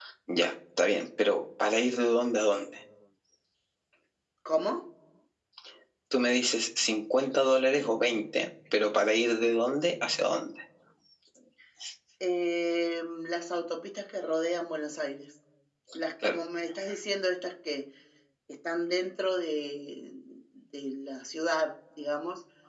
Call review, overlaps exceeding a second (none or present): none